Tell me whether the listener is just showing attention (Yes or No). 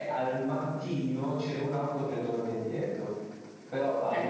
No